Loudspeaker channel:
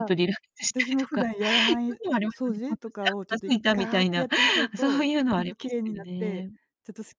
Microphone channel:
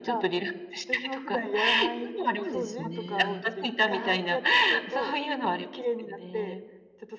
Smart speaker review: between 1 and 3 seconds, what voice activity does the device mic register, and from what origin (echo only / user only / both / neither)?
both